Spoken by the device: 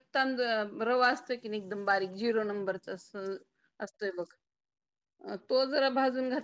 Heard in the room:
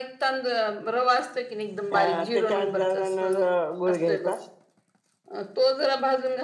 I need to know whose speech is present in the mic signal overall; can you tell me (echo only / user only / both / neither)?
both